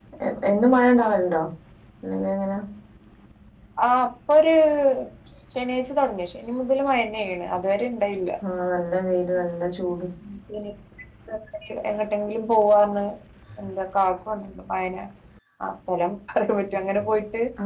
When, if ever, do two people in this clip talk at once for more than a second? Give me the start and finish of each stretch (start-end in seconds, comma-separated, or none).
none